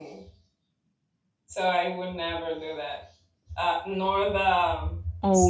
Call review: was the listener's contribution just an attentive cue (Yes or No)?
No